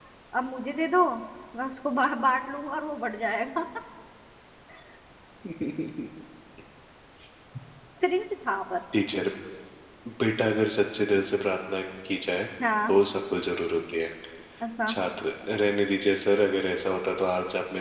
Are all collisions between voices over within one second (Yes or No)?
Yes